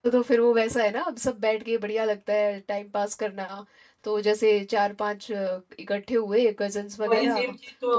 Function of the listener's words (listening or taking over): taking over